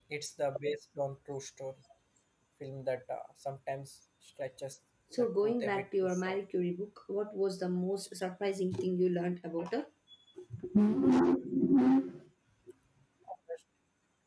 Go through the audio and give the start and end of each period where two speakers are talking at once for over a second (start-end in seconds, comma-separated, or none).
5.2-6.4